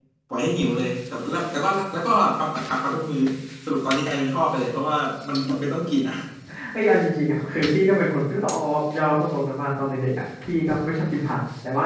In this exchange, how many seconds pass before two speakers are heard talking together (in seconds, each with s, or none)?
none